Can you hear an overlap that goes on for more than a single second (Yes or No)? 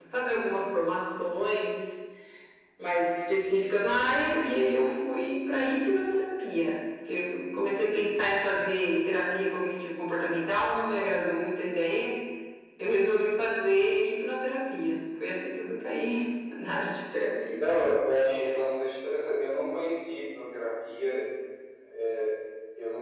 No